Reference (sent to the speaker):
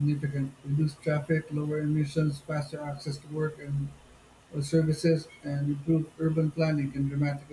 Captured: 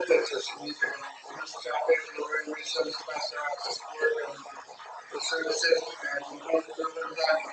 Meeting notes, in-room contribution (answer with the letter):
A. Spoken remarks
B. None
B